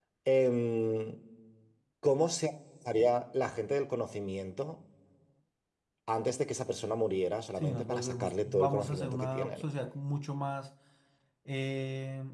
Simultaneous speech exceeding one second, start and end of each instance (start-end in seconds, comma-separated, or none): 7.6-9.6